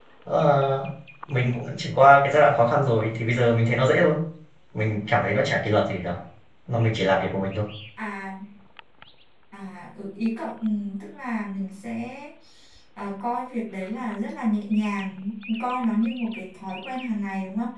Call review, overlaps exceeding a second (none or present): none